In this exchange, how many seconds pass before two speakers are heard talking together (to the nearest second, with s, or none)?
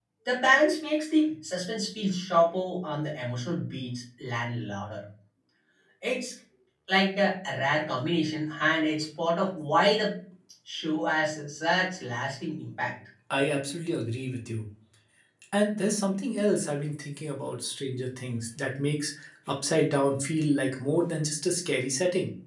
none